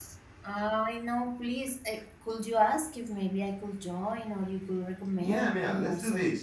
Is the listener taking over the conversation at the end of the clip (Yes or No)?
Yes